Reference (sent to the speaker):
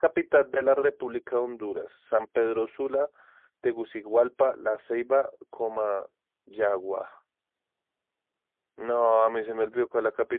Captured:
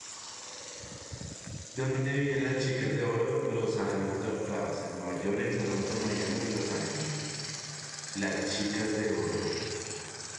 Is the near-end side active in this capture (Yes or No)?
Yes